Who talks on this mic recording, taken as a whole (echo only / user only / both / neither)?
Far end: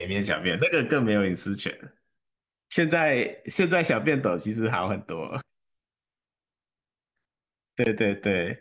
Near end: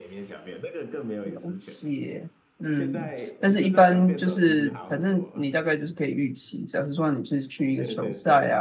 both